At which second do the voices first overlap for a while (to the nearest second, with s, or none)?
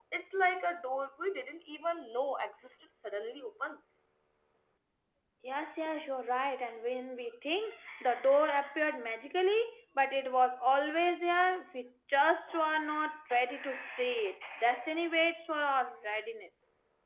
none